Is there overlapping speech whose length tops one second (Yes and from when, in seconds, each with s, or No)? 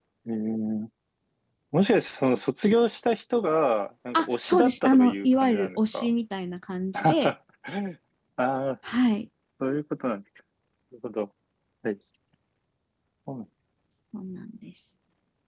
Yes, from 4.1 s